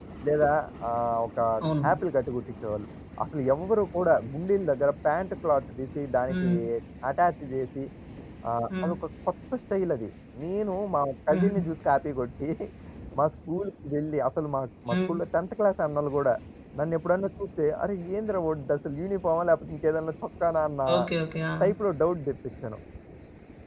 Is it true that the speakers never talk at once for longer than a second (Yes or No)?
Yes